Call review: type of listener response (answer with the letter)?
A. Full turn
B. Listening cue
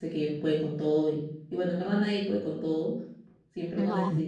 B